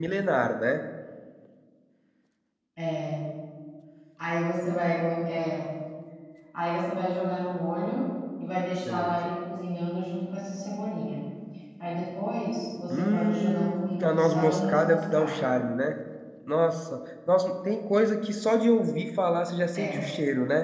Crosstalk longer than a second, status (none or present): present